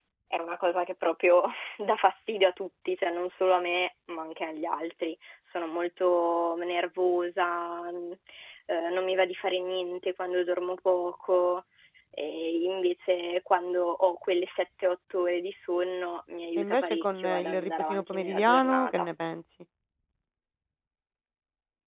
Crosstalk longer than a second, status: present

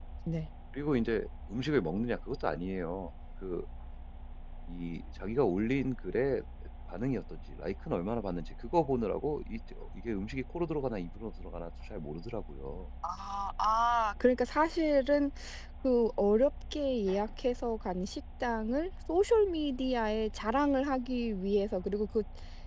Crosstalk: none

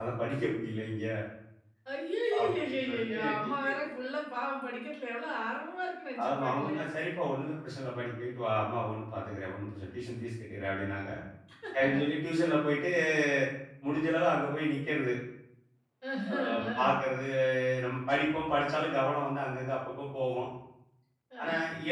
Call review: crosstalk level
present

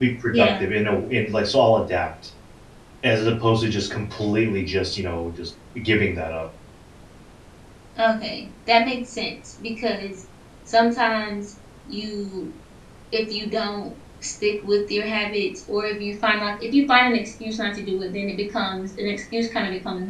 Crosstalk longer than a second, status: none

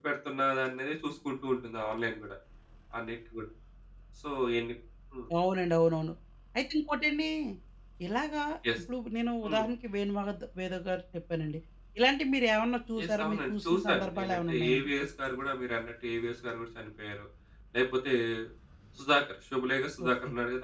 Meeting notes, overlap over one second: present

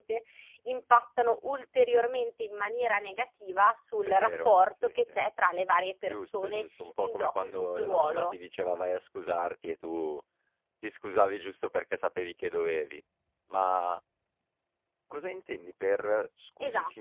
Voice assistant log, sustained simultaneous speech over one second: present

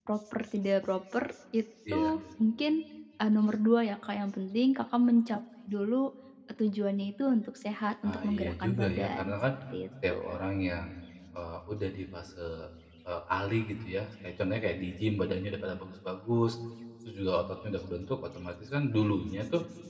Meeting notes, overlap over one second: present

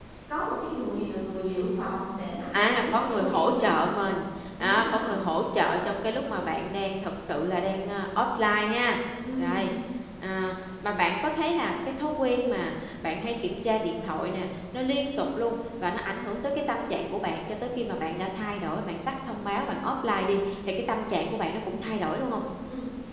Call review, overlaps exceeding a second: present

